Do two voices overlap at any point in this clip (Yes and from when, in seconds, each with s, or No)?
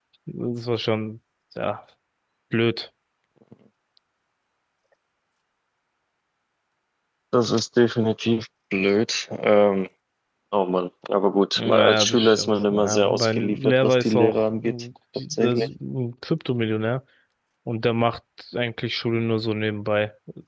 Yes, from 11.6 s